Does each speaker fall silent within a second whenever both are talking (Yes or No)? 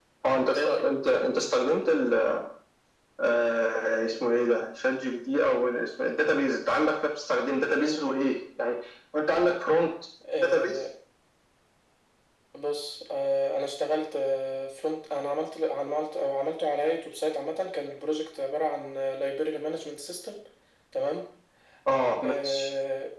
Yes